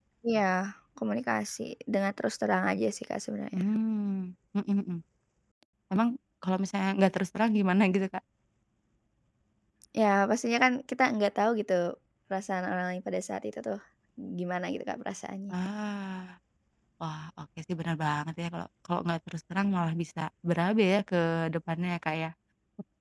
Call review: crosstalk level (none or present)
none